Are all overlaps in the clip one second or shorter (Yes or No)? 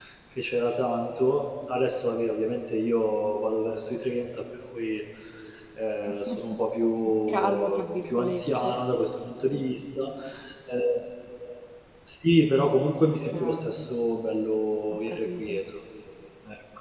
No